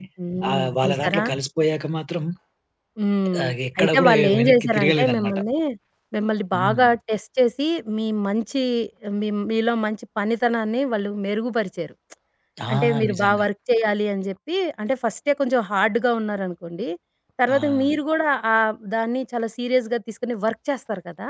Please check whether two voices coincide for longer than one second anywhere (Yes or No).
Yes